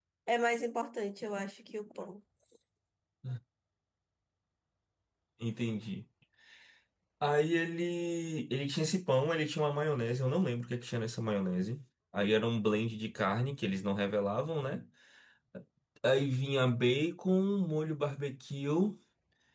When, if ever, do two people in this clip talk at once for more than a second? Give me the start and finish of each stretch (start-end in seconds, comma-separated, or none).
none